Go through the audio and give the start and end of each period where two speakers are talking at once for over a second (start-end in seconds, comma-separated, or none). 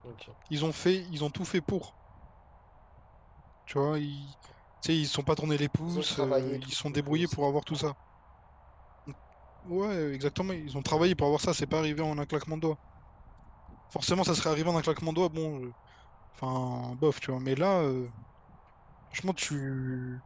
5.9-7.3